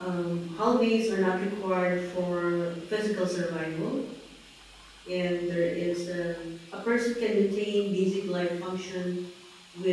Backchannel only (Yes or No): Yes